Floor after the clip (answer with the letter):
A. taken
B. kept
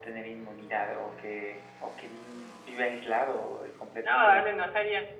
A